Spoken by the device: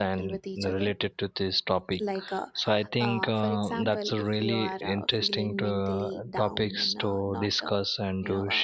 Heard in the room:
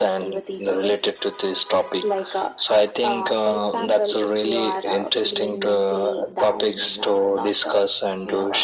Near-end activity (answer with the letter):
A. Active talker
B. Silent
B